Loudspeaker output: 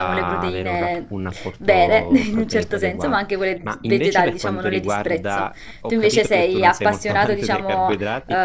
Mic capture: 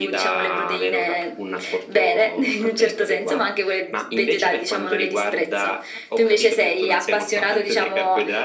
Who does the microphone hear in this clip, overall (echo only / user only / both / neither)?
echo only